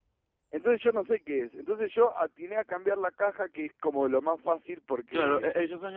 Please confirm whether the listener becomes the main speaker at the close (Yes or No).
Yes